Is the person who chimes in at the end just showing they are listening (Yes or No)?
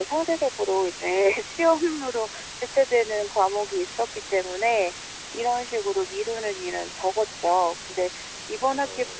Yes